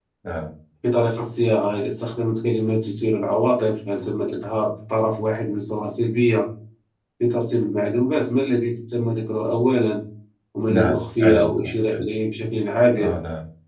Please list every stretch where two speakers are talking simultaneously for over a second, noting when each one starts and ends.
10.7-12.0

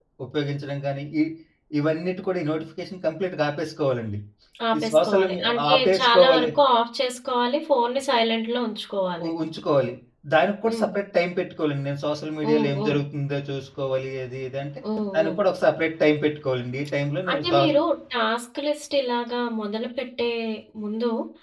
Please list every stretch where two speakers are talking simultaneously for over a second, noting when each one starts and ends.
4.8-6.5

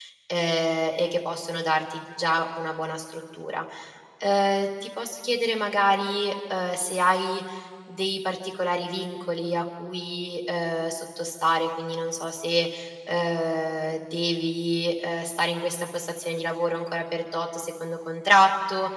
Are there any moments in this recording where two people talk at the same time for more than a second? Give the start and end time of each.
none

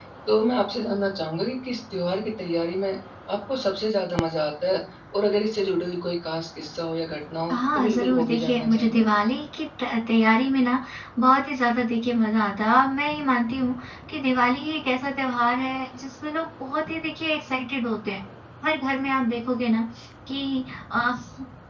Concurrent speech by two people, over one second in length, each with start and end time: 7.5-9.0

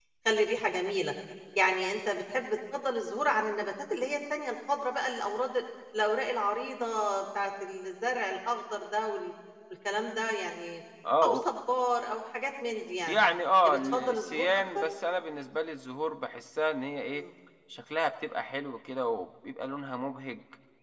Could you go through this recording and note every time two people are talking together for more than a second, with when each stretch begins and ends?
13.7-14.9

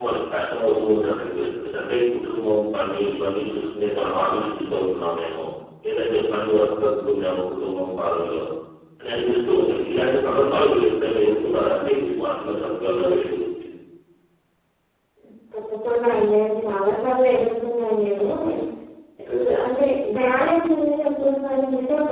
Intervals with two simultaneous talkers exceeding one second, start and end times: none

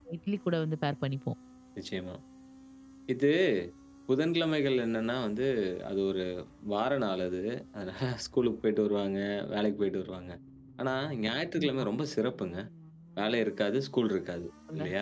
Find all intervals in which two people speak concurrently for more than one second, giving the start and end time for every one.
none

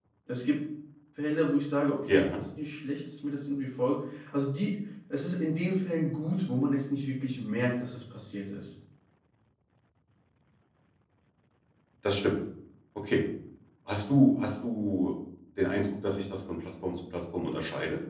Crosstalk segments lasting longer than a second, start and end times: none

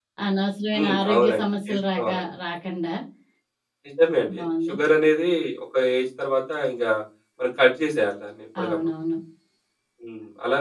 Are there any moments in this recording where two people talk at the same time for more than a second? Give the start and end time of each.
0.7-2.2

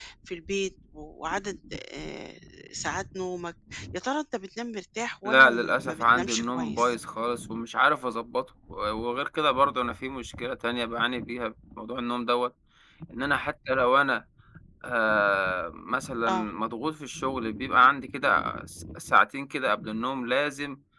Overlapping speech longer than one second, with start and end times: 5.2-7.0

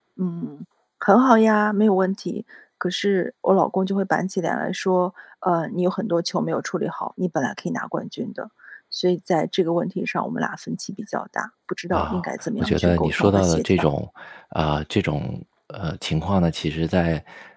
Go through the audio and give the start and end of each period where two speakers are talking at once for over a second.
12.6-13.9

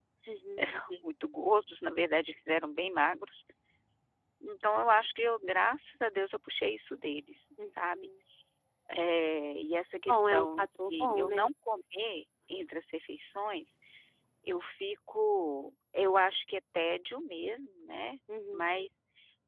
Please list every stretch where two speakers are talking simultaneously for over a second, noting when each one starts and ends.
9.9-11.4

